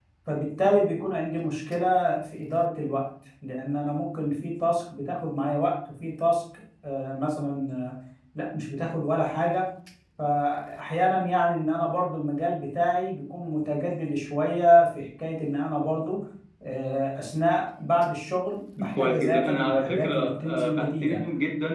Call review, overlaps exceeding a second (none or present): present